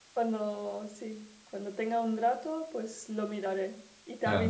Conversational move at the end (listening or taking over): taking over